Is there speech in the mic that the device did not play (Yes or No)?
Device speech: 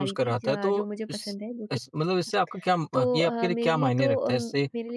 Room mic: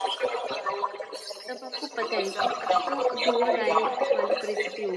Yes